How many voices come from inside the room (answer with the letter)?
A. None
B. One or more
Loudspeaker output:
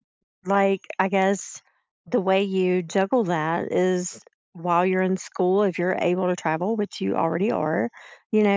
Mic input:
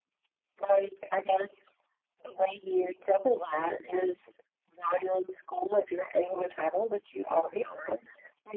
A